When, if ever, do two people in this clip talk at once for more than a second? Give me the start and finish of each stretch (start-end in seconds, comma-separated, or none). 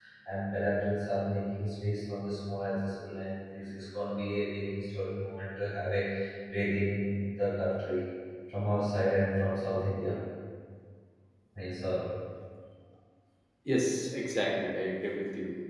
none